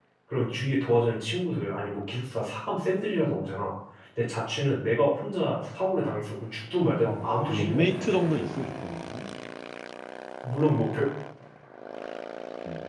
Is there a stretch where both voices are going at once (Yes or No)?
Yes